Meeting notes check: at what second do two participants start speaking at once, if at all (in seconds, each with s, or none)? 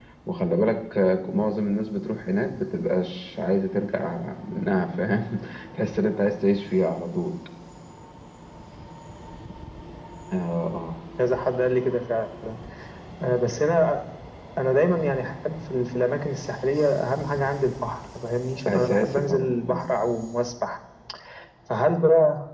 18.7 s